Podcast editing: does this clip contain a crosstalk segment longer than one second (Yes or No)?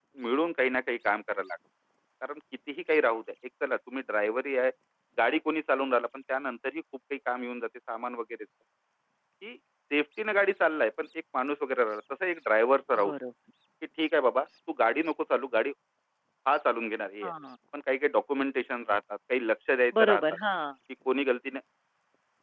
No